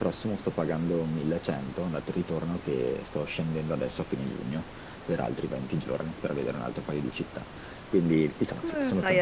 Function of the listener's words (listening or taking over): taking over